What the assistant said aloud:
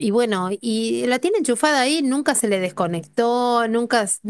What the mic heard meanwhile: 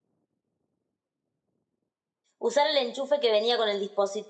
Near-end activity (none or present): present